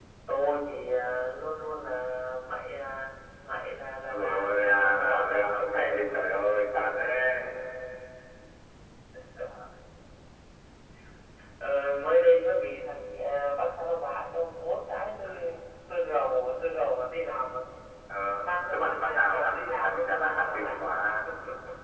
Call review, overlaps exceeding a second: present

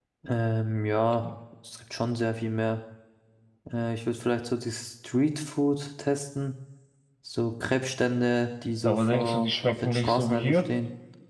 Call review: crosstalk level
present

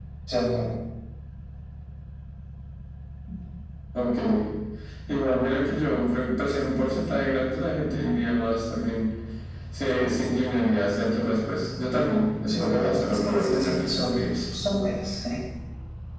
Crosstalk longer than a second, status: present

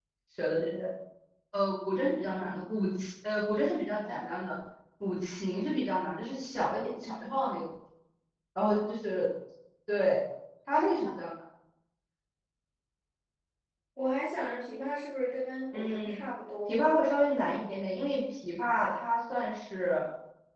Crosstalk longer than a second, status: none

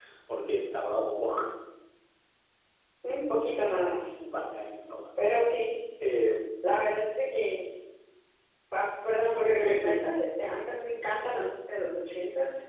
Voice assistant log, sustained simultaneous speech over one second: none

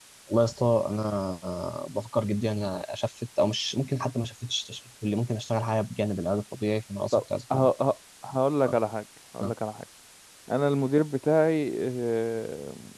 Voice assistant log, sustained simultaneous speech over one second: none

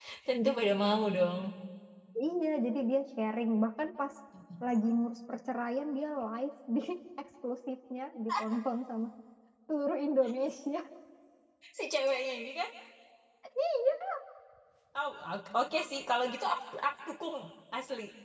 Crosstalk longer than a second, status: none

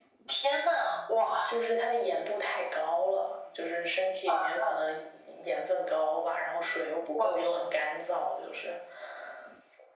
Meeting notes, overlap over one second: none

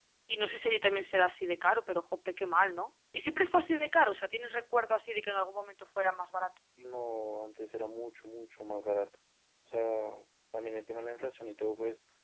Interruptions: none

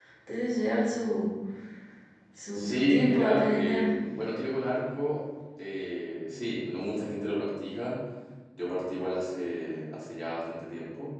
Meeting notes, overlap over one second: present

